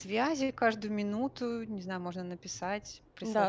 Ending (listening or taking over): taking over